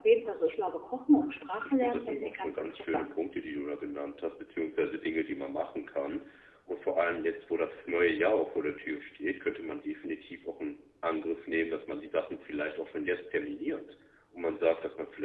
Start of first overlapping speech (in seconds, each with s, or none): 1.6 s